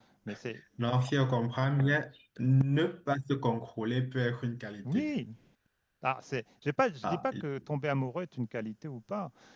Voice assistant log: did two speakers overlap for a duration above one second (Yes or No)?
No